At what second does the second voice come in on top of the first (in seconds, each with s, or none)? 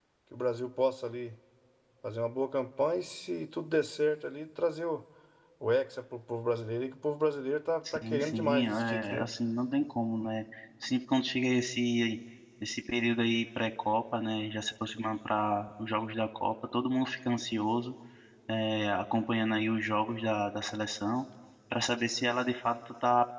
7.8 s